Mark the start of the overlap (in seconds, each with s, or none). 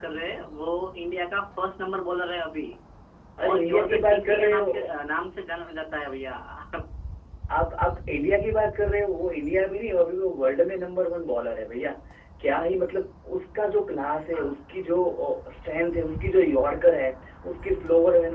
3.5 s